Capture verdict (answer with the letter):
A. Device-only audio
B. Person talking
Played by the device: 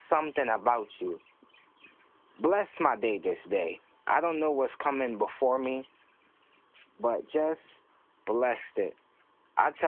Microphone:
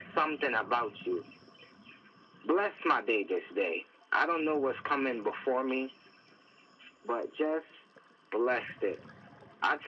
A